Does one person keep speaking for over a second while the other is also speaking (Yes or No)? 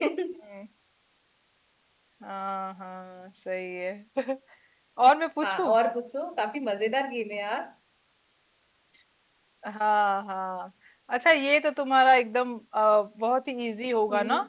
No